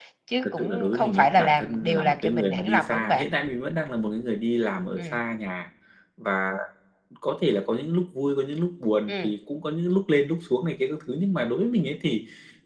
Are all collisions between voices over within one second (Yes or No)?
No